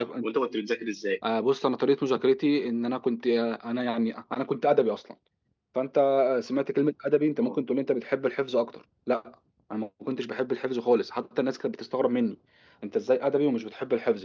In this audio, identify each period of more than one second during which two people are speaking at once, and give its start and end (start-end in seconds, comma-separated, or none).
none